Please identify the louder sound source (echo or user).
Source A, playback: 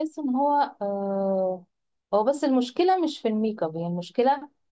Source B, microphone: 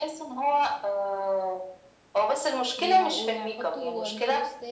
echo